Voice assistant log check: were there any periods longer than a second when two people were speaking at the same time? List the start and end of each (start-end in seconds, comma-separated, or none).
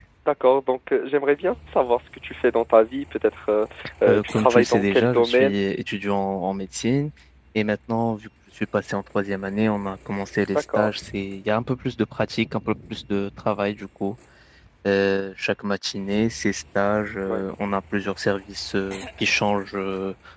4.1-5.6